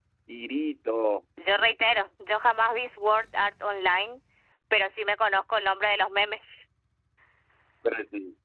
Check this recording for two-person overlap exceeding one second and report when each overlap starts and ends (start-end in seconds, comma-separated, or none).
none